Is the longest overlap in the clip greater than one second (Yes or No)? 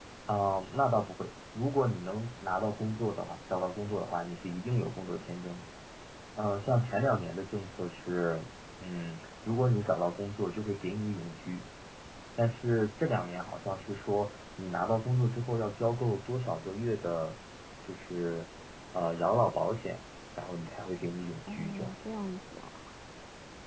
No